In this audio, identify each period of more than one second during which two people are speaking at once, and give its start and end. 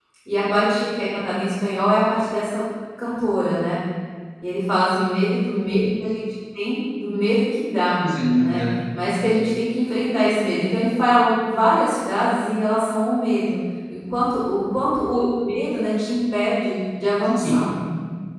none

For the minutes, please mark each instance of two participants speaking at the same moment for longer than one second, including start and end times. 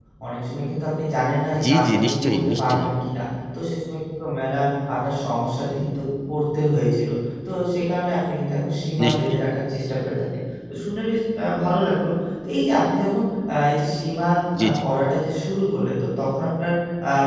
1.7-2.9

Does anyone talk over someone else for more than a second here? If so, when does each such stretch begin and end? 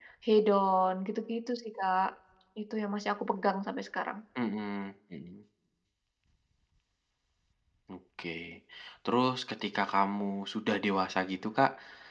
none

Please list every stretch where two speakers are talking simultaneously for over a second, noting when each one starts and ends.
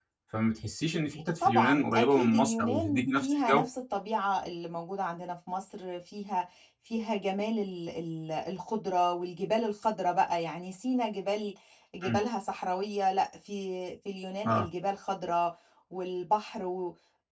1.4-3.6

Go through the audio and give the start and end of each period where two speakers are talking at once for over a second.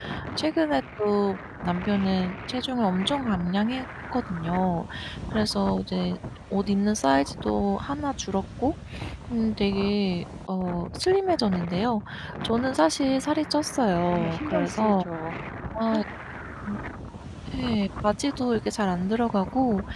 13.0-15.0

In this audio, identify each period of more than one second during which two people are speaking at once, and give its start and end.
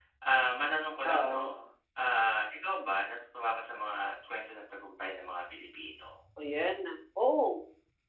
none

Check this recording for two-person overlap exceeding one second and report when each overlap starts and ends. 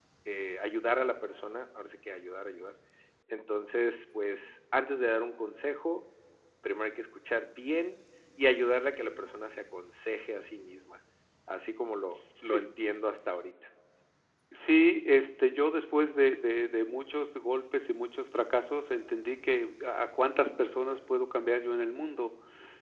none

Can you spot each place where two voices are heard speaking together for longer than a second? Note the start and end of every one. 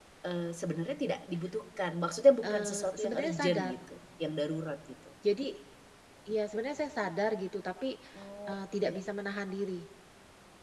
2.4-3.7

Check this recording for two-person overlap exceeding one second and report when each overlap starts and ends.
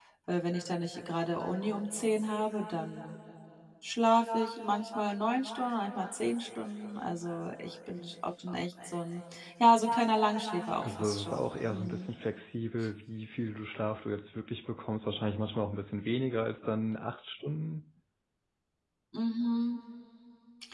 10.8-12.1

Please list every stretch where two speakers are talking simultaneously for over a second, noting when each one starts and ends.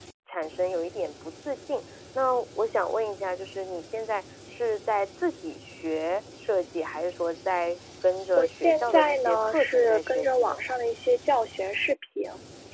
8.3-10.6

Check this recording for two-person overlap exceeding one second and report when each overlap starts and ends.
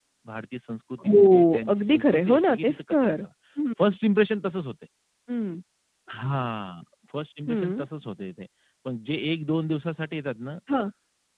1.0-3.3

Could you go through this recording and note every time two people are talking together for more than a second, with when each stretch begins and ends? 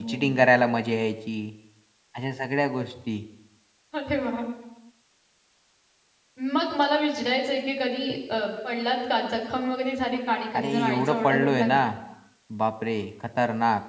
10.5-11.8

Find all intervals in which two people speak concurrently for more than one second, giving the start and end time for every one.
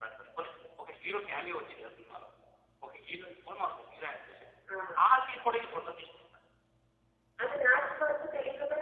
none

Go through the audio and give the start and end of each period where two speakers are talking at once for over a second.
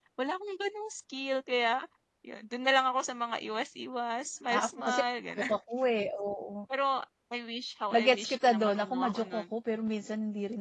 7.9-9.6

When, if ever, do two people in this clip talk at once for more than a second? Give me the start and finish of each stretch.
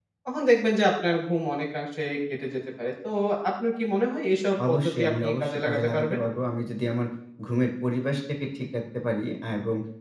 4.7-6.2

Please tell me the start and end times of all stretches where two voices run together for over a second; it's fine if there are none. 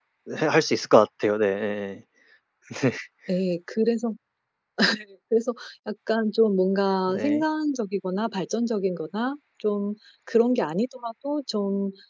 none

